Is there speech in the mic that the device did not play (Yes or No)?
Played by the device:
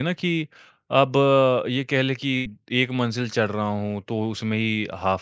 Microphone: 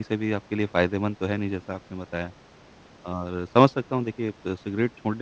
Yes